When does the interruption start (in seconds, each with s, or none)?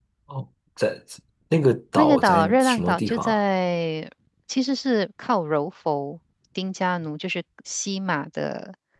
2.0 s